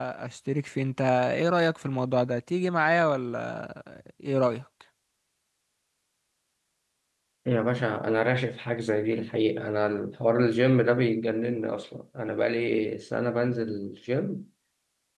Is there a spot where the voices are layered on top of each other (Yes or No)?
No